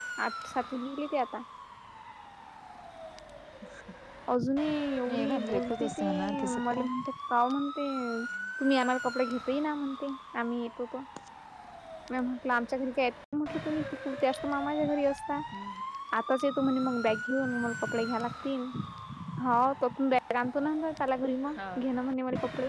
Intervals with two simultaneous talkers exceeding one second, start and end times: 5.1-6.9

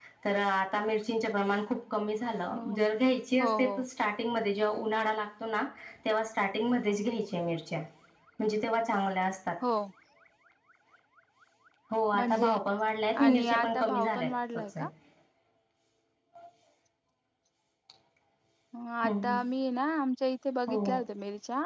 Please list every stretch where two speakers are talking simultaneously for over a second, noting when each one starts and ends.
13.2-14.6

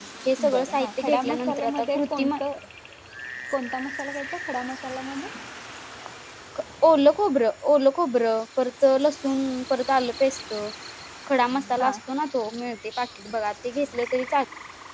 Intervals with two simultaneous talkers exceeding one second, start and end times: 0.5-2.3

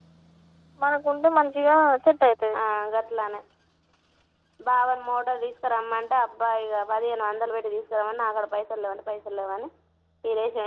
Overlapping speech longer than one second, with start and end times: none

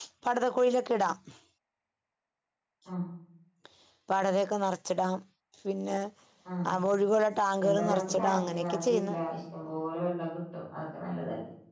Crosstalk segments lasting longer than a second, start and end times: 7.6-9.2

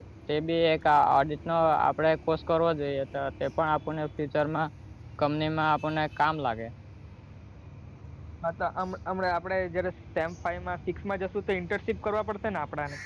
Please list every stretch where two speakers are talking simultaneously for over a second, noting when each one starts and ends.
none

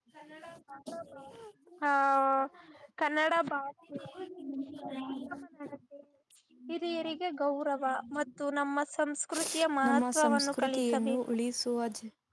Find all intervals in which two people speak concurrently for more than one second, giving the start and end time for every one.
9.9-11.2

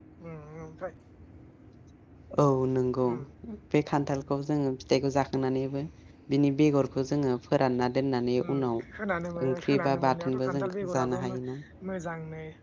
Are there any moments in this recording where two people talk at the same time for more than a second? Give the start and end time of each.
9.5-11.2

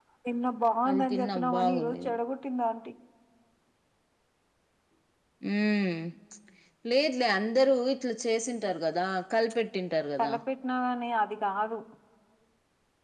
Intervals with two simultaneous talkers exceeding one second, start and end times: 0.9-2.2

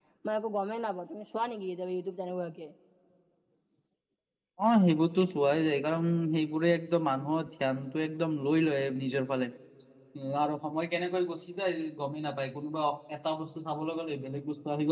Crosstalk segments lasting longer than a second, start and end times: none

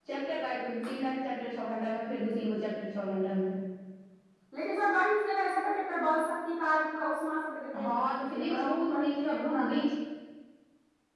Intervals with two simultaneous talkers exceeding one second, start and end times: 7.8-9.6

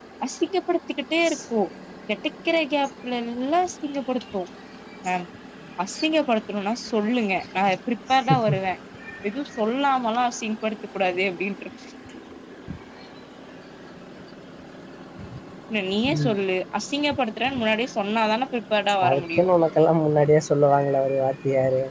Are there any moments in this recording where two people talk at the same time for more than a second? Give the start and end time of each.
none

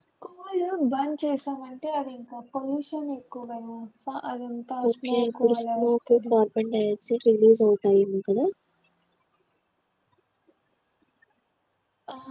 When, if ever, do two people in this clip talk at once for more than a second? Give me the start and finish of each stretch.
4.9-6.3

